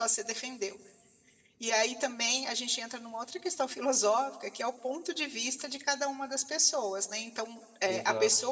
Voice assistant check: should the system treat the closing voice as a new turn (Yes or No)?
No